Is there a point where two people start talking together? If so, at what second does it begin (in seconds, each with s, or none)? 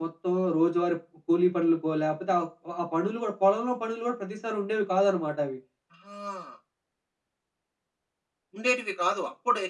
none